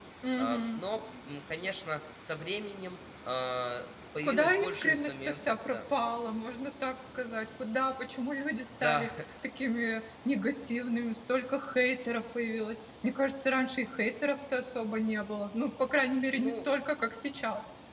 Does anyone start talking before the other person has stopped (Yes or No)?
Yes